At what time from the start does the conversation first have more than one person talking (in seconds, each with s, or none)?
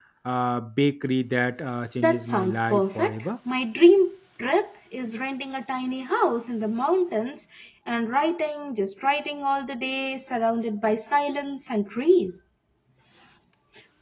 2.0 s